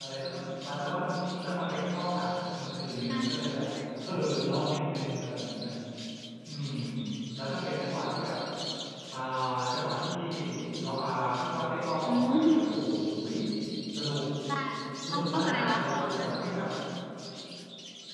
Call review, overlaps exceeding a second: present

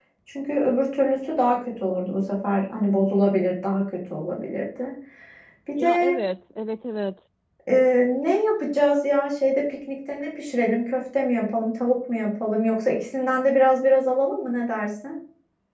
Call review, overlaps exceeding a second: none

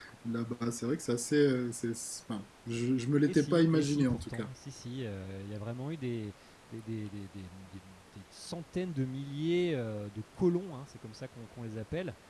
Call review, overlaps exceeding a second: present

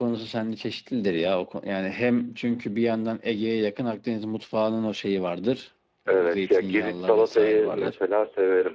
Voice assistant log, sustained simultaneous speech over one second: present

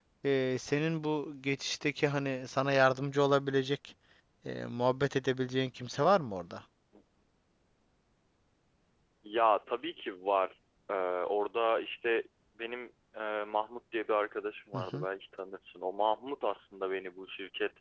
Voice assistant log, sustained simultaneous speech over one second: none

